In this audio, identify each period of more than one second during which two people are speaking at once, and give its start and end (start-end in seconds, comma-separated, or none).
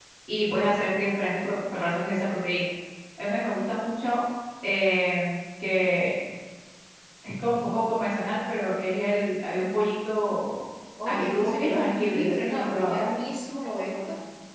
11.0-13.0